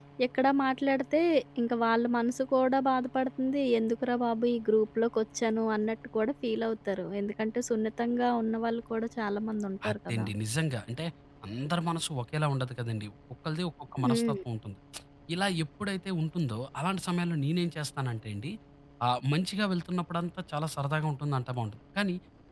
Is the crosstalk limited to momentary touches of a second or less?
Yes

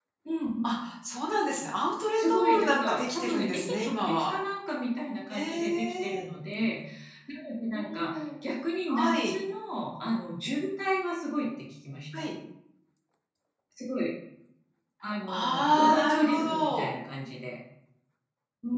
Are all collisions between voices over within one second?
No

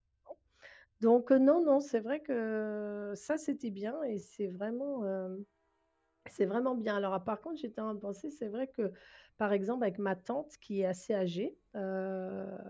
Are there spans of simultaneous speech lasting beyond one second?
No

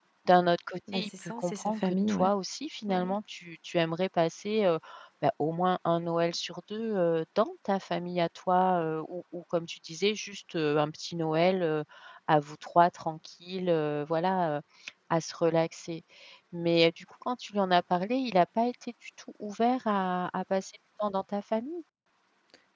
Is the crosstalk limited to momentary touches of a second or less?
No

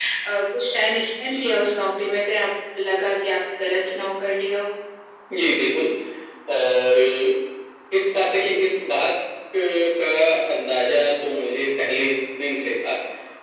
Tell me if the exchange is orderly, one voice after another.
Yes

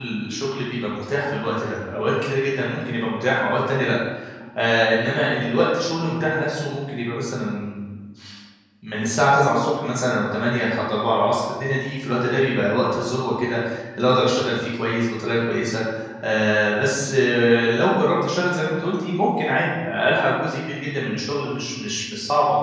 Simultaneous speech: No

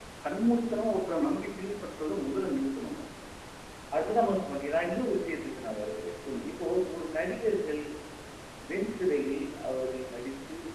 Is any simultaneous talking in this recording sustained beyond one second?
No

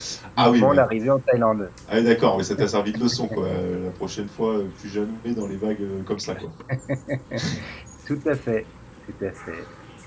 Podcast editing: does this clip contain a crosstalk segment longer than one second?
No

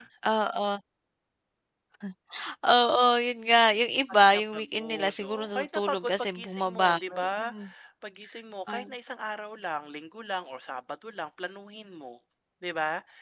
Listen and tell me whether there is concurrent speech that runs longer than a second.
Yes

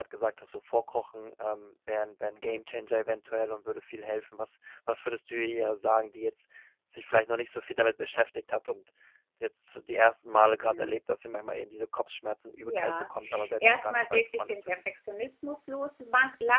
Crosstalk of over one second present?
Yes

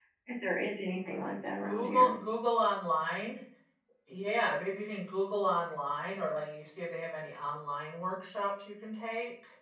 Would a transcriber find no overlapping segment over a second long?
Yes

